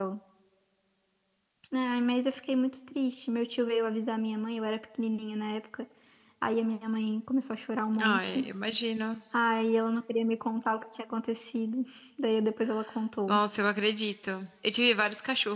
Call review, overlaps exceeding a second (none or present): none